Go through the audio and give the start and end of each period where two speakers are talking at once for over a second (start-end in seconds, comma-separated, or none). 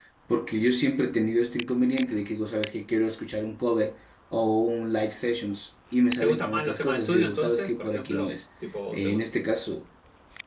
6.2-8.3